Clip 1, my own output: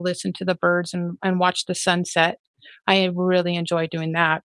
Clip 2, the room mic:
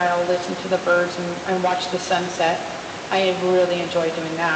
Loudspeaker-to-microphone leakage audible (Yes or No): Yes